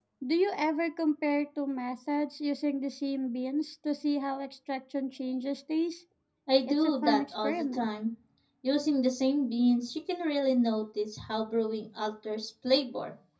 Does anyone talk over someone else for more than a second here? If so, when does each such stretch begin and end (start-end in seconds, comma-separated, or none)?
6.7-7.9